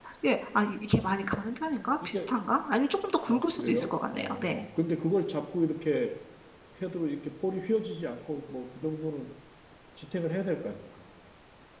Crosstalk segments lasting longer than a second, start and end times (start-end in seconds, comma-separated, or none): 3.3-4.6